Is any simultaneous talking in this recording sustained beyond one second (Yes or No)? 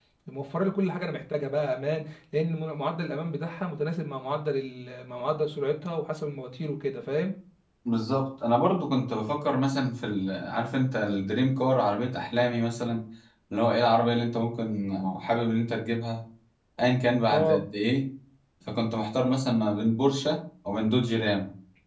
No